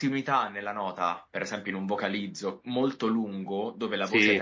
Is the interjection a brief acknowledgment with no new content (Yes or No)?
Yes